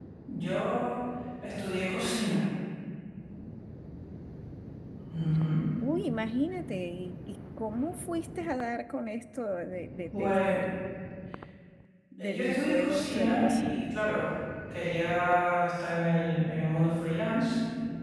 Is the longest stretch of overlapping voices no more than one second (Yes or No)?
No